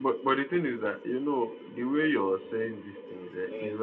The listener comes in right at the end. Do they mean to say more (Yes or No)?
No